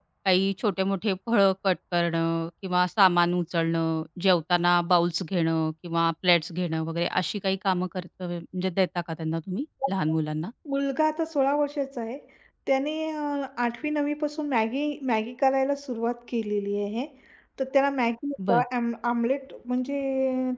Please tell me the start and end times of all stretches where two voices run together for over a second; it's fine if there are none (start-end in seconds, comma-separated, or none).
none